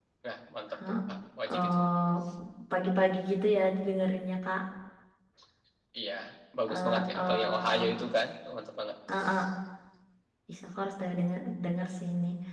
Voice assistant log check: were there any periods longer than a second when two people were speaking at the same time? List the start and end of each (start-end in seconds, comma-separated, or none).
6.7-8.0